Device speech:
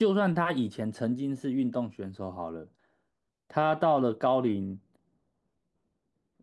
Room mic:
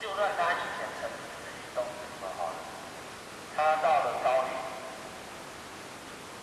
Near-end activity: none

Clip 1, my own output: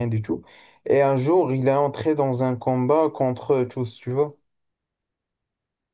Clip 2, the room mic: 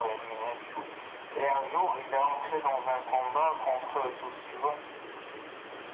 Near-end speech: none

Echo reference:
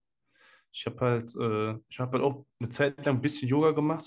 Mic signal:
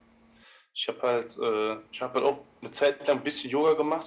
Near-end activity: none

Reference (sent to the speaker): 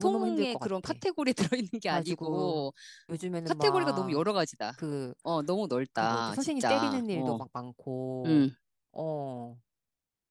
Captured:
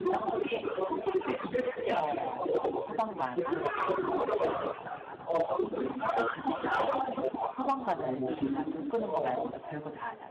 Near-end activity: present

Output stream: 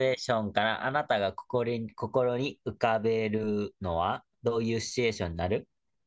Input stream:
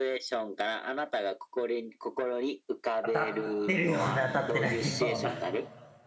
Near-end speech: present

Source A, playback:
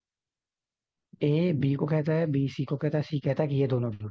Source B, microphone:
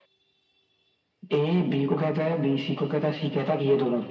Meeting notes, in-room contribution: none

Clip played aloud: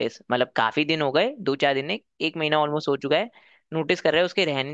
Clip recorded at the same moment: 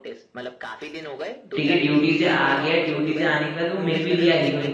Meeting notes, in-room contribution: present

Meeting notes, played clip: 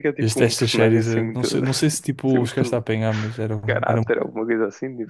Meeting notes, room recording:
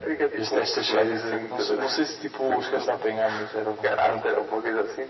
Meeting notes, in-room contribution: none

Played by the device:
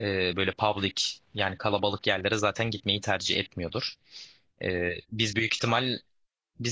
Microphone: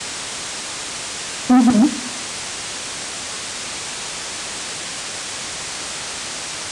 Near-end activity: present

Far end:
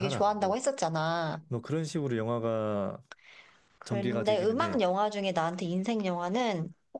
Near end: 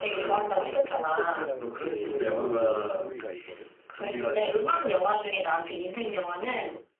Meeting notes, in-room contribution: present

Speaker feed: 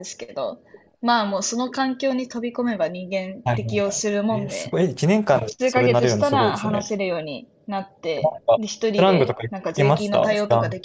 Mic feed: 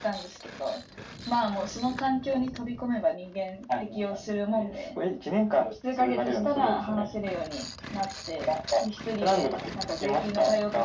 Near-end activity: none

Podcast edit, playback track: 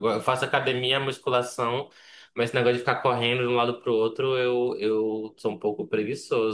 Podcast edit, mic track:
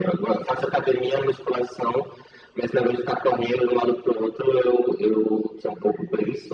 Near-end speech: none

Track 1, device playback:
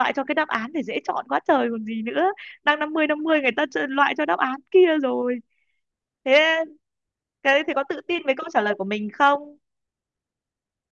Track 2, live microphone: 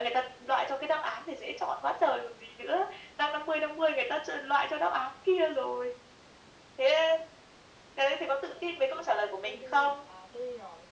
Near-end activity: present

